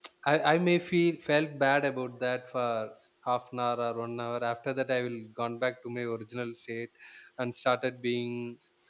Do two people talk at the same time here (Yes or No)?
No